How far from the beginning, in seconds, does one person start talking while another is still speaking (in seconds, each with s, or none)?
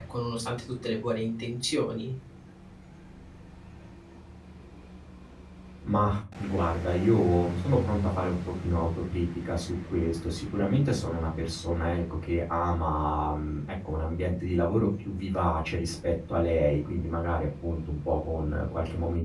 none